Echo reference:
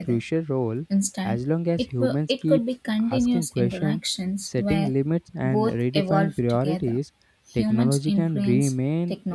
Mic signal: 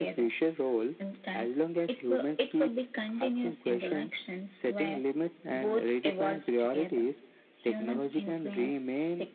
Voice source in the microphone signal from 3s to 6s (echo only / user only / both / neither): echo only